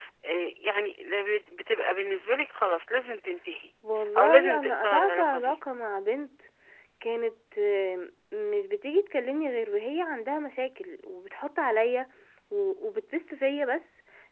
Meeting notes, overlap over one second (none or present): present